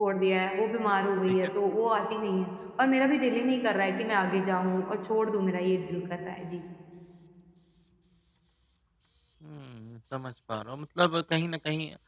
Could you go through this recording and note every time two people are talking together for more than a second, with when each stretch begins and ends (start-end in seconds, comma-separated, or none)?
none